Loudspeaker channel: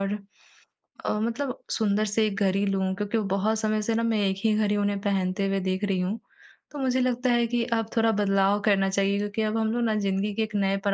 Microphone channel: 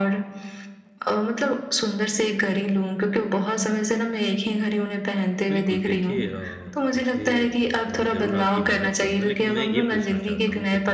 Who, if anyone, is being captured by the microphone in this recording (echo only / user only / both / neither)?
both